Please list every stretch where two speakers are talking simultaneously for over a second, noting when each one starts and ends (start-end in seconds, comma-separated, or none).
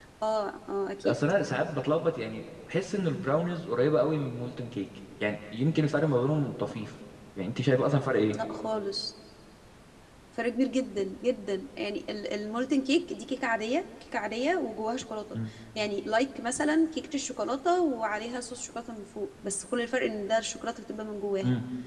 none